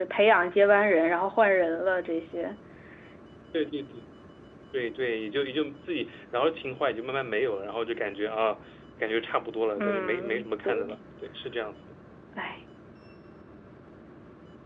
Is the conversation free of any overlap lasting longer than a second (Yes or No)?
No